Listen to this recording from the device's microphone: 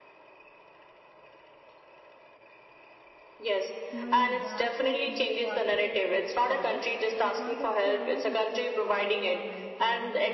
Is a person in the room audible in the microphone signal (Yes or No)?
Yes